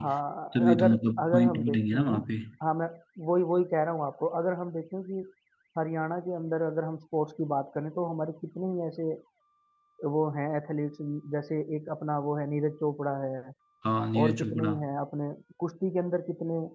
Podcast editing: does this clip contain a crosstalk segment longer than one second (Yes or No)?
Yes